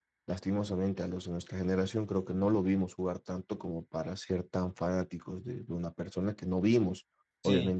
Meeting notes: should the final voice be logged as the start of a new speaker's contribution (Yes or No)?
No